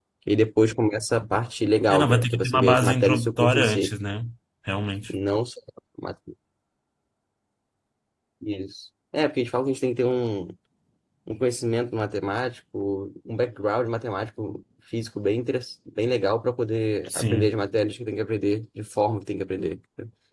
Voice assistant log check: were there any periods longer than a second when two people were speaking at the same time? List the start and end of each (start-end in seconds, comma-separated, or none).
1.9-3.9